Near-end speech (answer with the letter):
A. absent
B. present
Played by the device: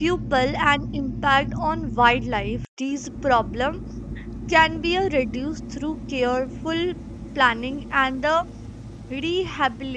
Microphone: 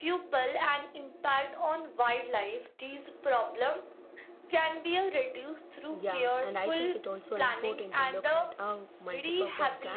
B